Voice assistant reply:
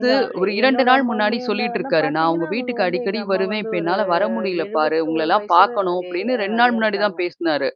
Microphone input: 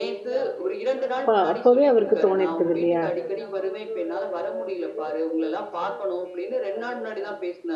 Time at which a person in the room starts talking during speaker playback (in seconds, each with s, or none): 1.1 s